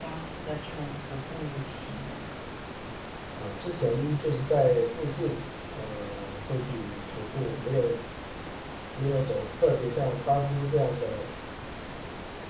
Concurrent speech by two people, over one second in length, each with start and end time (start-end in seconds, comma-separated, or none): none